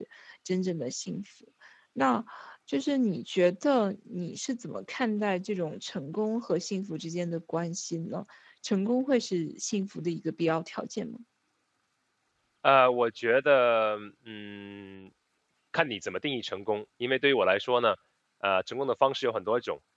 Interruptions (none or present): none